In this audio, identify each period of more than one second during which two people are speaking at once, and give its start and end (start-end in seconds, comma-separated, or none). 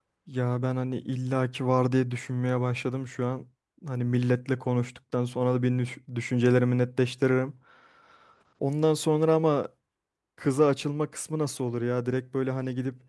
none